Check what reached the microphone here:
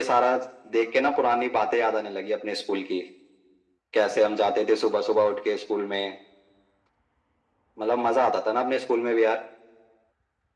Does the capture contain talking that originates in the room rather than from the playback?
No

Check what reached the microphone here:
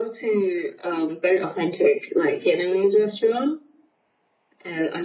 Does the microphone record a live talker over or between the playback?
No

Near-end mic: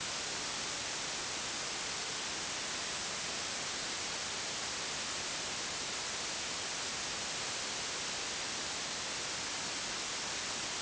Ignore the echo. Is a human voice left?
No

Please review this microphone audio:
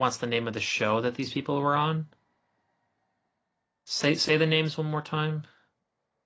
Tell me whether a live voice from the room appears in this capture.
Yes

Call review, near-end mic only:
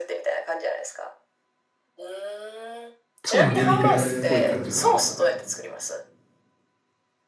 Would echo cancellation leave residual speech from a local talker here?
Yes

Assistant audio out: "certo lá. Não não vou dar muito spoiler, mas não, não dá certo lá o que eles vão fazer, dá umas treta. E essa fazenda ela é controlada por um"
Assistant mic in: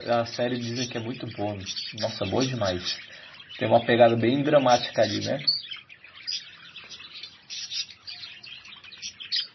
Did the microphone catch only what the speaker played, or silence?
No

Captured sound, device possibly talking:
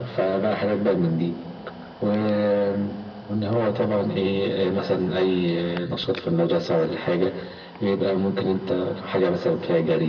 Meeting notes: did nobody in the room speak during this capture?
Yes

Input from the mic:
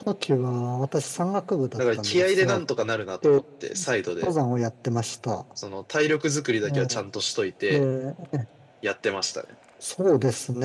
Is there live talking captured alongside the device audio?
No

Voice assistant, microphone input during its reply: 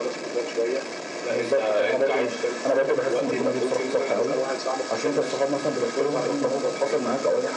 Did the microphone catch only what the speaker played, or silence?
Yes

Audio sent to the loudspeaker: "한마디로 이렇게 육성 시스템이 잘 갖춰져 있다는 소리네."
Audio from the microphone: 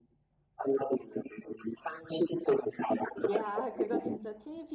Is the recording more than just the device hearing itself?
Yes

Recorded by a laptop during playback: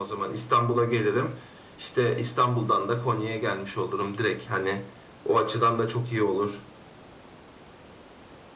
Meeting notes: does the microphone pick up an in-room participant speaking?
No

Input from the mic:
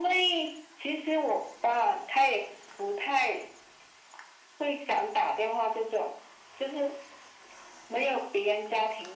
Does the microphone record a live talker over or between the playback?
No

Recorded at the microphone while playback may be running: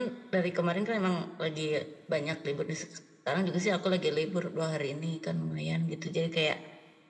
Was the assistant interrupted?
No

